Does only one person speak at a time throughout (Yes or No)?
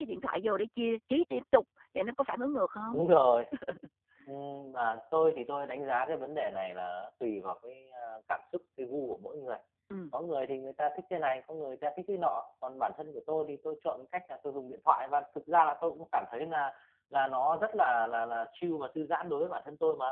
Yes